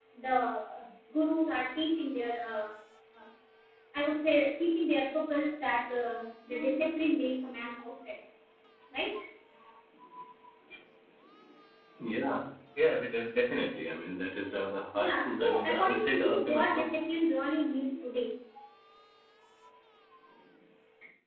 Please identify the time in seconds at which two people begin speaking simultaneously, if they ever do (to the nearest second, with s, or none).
15 s